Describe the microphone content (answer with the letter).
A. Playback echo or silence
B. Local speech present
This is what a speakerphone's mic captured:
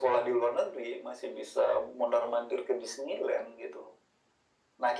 A